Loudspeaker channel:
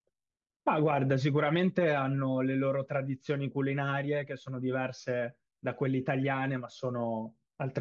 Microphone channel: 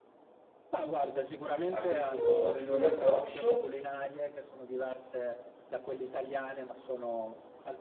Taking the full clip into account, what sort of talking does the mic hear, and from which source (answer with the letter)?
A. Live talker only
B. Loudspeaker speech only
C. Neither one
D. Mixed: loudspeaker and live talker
D